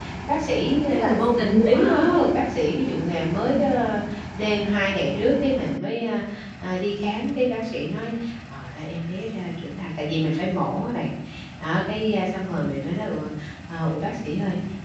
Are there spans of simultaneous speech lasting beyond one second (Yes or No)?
No